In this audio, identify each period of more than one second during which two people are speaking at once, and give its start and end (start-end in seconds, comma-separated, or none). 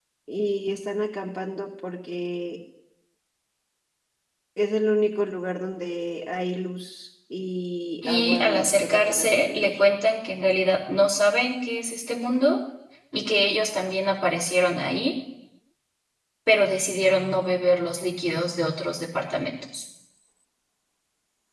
8.1-9.8